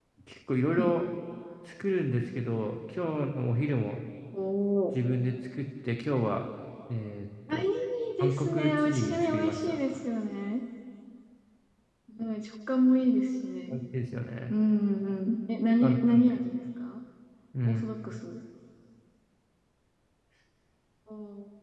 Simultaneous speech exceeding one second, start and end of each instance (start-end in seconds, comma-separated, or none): 8.2-9.8